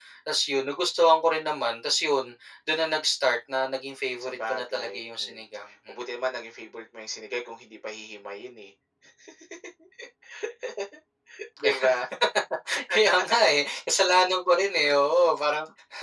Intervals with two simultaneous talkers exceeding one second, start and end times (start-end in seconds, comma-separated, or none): 4.2-5.5